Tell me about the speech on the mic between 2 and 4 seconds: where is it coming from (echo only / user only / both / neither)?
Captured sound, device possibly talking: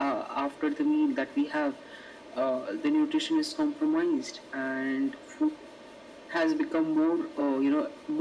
echo only